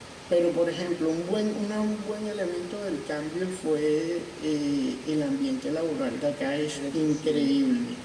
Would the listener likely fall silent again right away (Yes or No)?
Yes